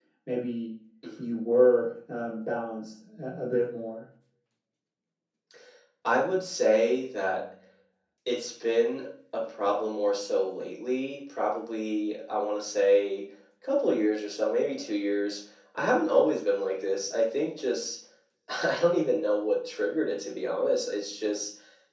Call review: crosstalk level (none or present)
none